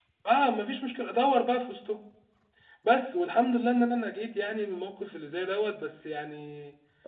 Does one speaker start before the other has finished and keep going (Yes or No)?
No